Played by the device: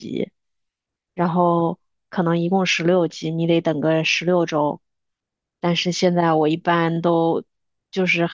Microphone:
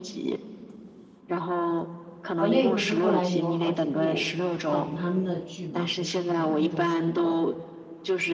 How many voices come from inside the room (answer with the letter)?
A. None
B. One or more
B